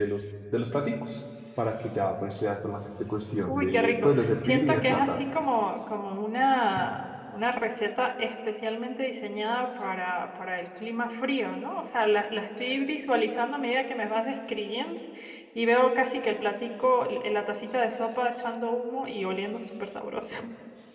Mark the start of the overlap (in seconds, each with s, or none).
3.5 s